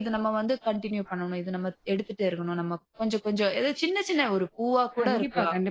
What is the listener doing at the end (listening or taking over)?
taking over